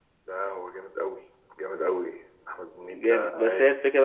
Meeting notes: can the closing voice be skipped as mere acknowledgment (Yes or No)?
No